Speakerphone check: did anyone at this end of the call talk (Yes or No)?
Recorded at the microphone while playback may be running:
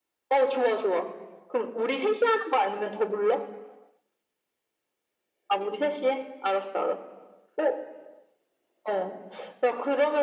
No